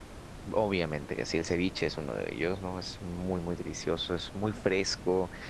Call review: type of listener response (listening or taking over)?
listening